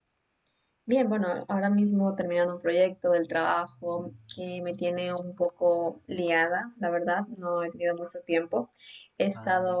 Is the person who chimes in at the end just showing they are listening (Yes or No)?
Yes